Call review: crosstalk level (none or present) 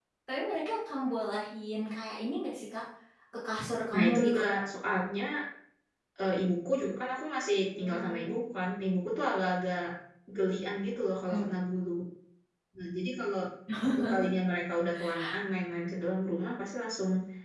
present